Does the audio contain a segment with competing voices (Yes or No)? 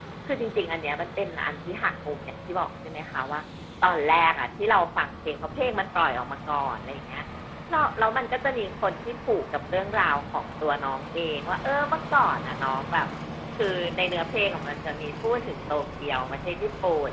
No